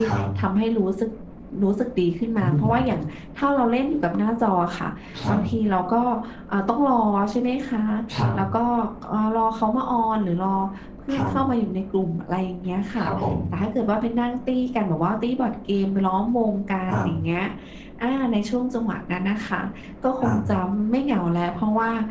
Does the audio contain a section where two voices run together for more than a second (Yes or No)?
No